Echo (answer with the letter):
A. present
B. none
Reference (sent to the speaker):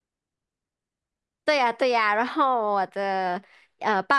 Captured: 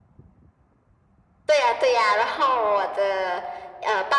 A